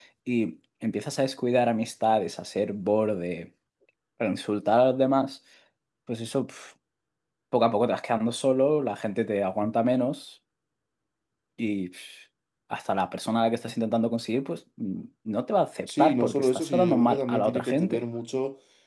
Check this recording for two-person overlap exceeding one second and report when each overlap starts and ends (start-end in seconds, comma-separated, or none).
15.9-18.0